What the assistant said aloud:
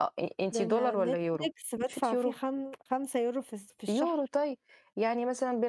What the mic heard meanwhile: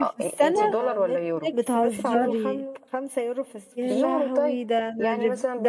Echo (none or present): present